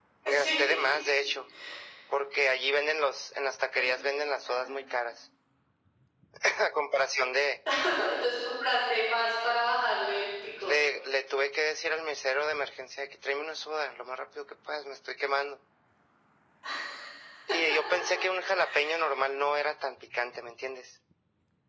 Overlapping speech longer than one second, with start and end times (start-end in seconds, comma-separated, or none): none